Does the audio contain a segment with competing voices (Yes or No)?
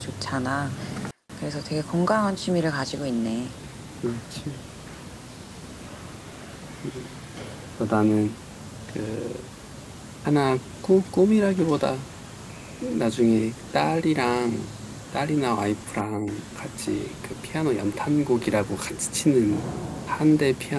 No